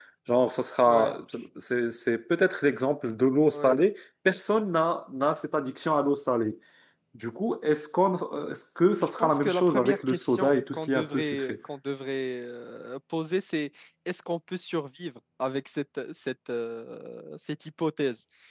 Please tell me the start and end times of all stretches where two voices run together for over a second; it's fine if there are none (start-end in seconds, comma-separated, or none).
9.0-11.6